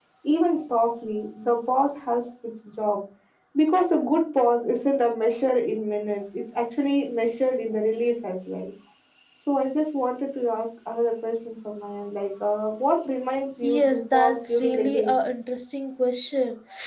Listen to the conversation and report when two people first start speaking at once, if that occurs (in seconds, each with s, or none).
13.6 s